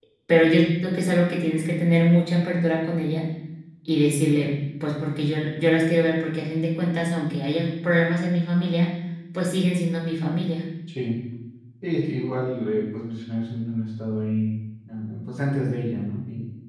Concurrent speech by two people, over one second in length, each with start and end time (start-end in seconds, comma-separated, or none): none